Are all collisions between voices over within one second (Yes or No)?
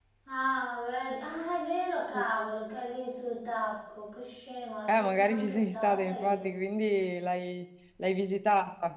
No